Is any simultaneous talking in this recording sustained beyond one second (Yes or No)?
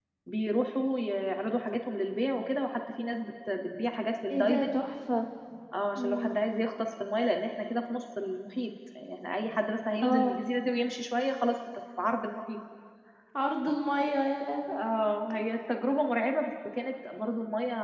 No